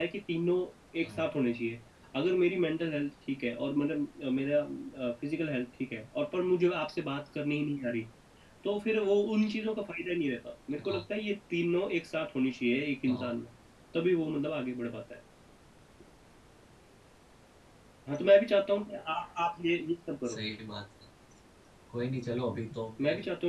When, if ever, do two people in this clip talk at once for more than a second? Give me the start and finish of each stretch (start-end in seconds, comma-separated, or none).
none